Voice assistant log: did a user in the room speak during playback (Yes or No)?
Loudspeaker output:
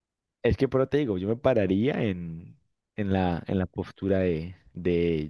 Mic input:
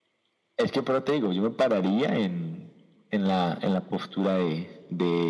No